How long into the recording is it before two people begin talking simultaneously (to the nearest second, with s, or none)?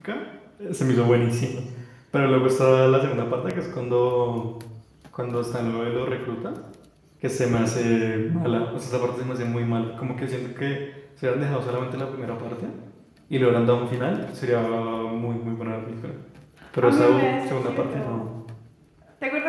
17 s